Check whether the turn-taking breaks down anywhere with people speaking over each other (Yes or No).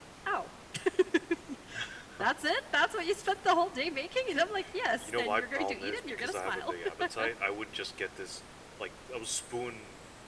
Yes